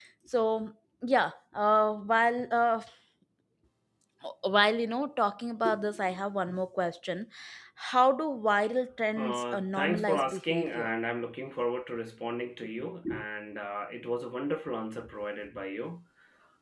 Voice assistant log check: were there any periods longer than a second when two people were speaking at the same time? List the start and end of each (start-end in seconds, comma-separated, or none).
9.2-10.9